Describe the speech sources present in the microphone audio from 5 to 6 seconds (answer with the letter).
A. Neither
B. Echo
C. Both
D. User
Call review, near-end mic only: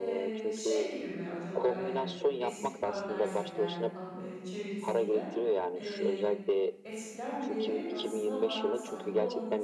C